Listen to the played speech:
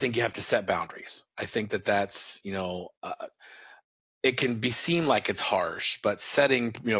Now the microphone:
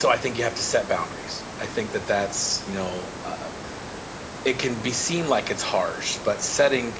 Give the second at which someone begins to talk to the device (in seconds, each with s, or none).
none